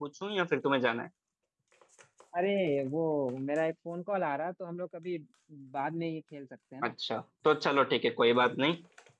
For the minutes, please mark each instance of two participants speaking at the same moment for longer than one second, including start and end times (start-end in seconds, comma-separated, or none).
none